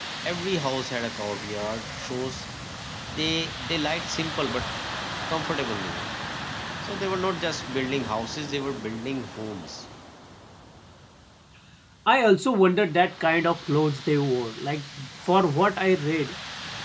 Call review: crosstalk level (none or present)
none